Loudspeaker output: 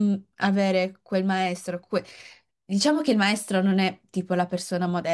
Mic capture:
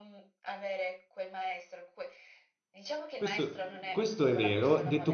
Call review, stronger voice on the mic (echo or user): user